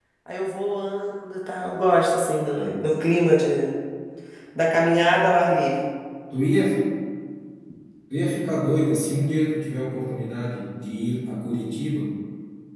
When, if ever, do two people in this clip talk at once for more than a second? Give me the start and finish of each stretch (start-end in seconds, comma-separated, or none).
none